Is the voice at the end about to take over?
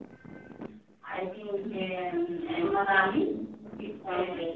Yes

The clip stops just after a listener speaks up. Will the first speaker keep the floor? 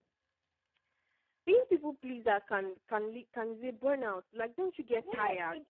No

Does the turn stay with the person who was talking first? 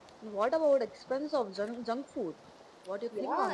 No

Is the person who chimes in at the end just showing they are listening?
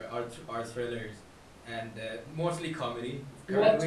Yes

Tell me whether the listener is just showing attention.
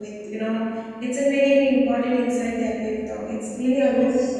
No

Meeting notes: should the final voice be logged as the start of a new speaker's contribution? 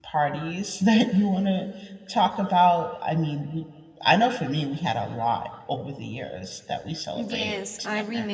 Yes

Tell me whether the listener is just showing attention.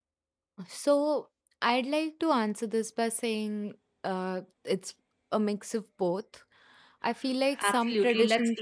No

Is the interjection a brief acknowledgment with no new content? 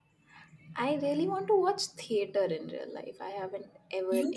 No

